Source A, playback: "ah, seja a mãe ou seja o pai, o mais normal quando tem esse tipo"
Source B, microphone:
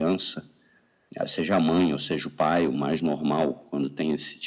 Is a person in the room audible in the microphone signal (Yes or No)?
No